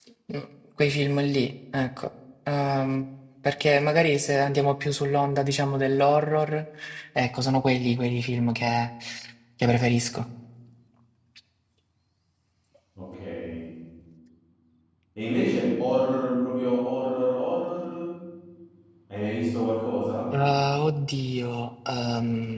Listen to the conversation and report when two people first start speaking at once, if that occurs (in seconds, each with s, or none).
none